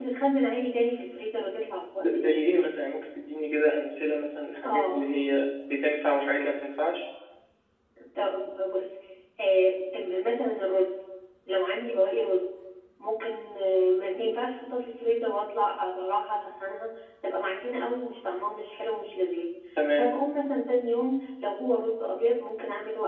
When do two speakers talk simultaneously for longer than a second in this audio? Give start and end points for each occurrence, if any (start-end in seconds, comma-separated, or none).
none